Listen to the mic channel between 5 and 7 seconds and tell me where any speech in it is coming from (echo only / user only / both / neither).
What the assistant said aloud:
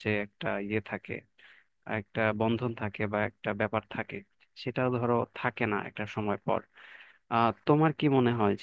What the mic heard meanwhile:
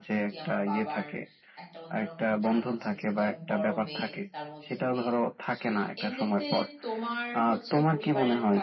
both